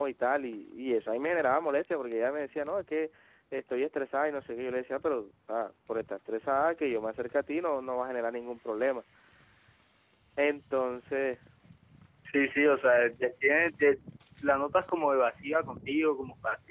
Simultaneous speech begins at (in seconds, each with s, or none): none